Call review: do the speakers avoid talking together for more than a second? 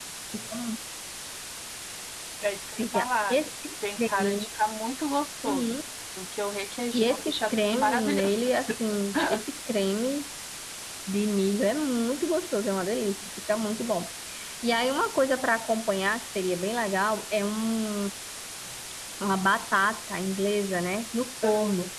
No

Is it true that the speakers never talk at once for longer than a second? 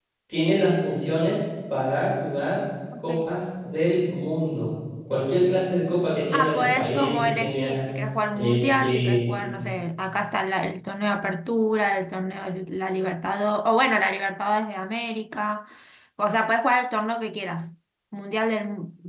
No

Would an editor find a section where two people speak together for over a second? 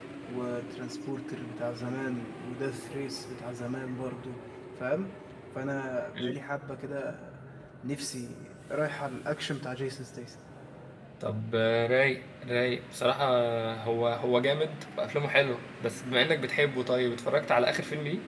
No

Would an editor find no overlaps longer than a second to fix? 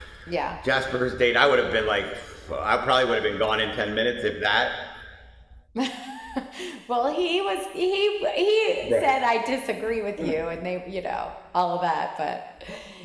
Yes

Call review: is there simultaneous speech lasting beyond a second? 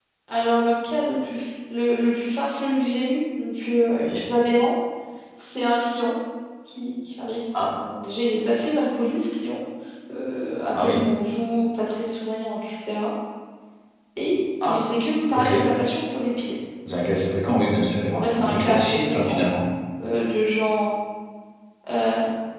Yes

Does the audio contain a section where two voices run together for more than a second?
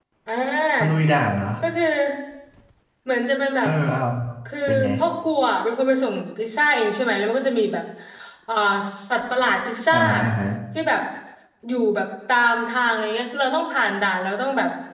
No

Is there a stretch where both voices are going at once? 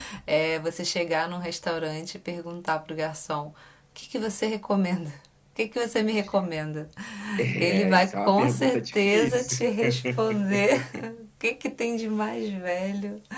Yes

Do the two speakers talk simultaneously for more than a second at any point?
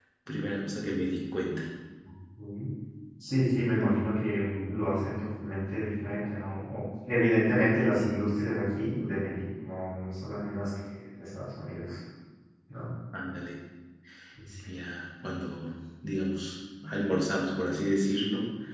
No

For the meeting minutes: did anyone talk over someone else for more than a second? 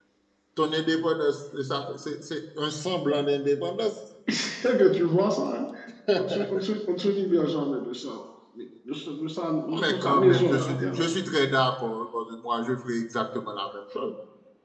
Yes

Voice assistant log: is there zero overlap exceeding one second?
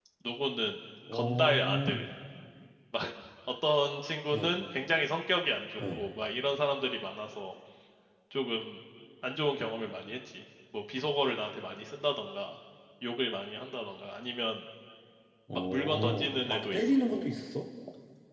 No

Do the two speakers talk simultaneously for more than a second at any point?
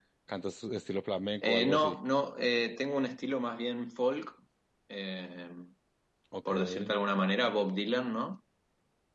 No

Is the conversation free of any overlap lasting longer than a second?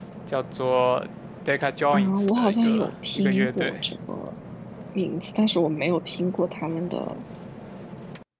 No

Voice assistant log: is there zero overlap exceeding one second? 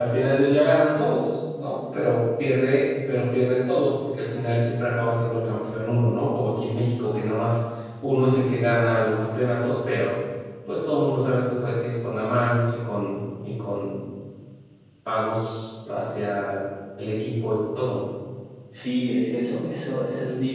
Yes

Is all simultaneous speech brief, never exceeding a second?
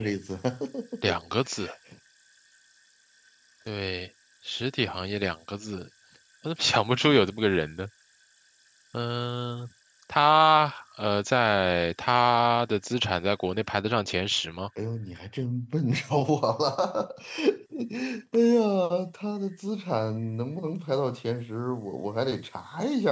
Yes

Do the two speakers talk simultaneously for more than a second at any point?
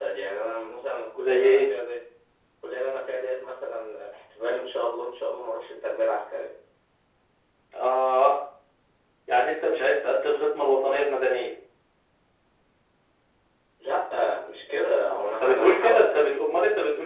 Yes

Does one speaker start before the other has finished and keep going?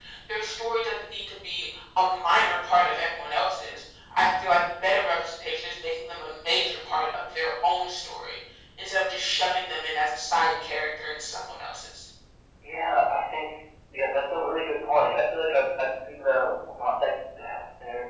No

